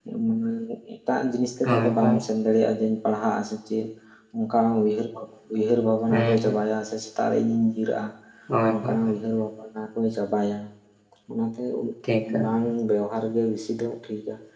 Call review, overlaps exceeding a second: none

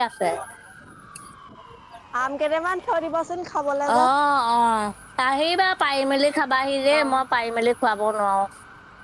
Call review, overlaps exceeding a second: none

